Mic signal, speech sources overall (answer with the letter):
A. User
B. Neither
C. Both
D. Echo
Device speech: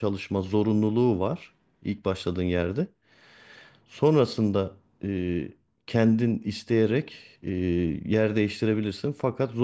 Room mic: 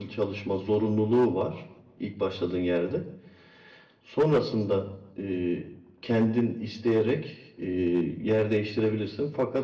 D